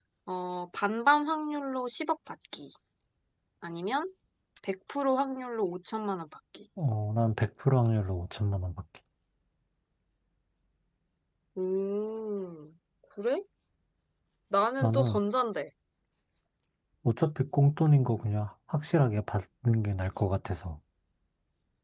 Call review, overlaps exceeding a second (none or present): none